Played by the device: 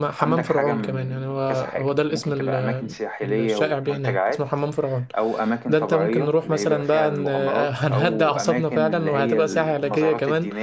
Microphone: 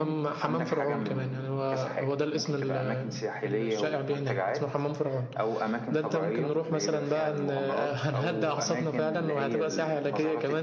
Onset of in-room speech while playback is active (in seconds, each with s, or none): none